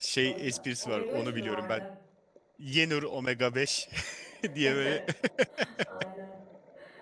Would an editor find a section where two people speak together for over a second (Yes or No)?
Yes